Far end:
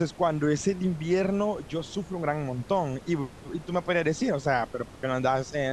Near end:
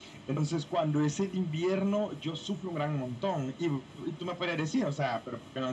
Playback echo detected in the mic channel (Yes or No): Yes